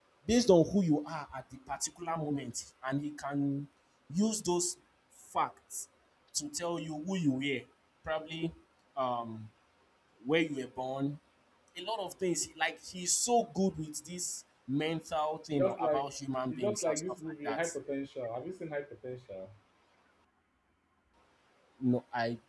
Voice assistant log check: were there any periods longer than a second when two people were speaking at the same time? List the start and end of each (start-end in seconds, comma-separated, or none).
16.5-17.8